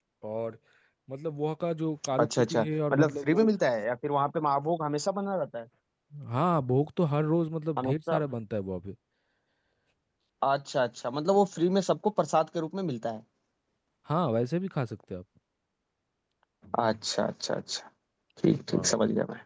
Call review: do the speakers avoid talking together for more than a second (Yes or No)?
No